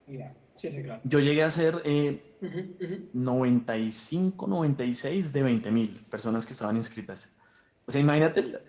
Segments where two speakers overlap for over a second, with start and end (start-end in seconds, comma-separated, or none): none